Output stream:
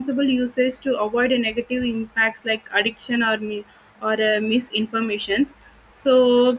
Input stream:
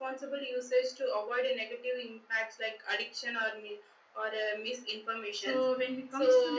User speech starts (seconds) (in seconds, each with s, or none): 5.4 s